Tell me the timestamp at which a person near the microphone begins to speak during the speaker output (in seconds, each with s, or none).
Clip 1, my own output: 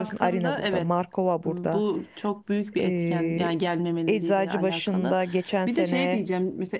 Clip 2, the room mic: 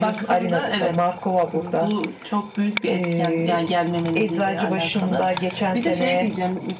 none